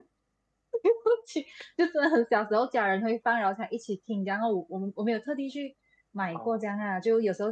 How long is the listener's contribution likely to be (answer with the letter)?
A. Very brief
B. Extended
A